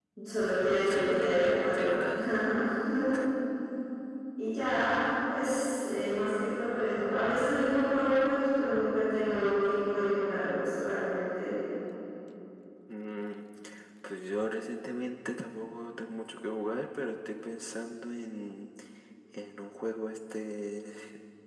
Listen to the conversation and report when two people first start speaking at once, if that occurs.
0.8 s

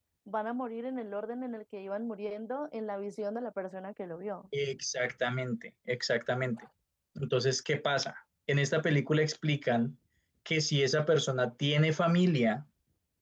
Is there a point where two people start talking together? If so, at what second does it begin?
none

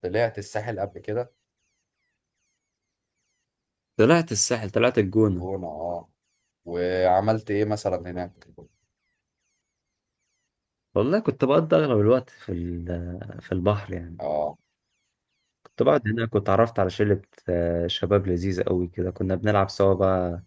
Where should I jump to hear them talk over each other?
none

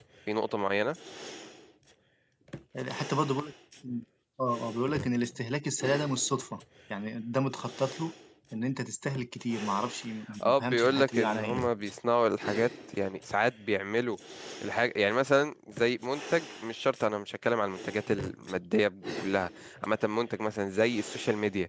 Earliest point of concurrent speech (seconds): 10.4 s

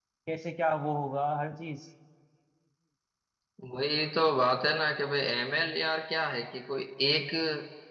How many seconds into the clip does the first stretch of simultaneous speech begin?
none

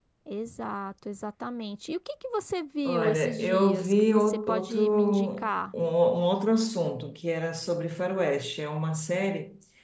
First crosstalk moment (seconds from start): 2.8 s

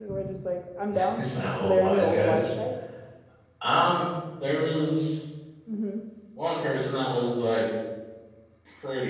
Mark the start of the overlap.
1.2 s

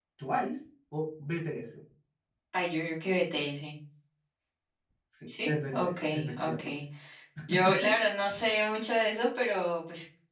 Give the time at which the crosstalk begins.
5.5 s

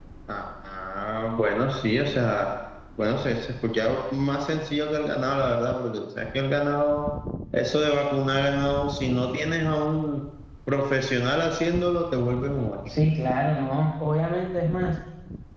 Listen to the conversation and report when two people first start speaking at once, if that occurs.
none

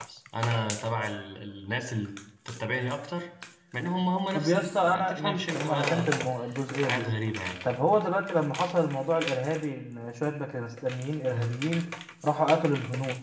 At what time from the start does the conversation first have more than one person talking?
4.3 s

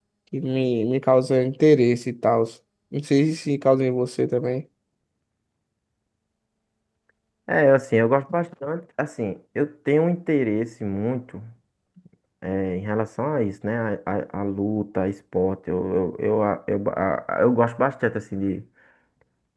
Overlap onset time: none

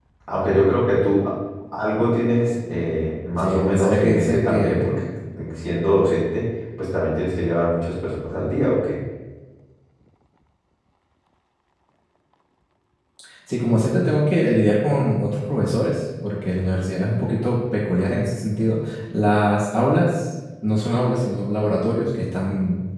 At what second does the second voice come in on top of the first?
3.4 s

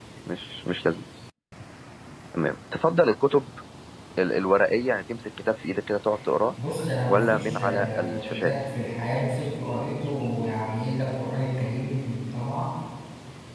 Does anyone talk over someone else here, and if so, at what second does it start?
7.1 s

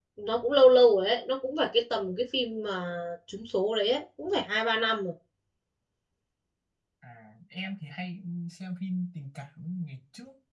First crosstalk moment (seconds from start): none

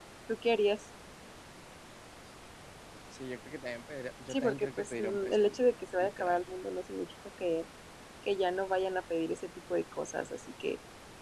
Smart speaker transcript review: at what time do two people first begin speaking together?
4.3 s

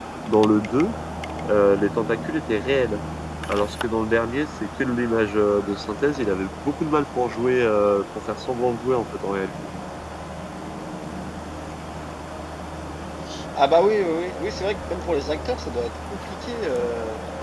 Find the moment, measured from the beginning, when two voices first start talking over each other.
none

